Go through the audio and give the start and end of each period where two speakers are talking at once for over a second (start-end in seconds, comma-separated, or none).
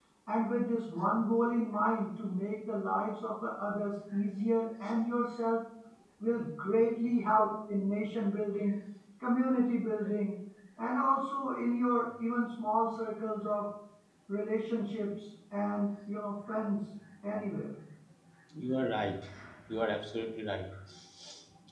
none